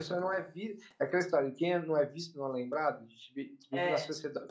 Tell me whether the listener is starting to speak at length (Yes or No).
No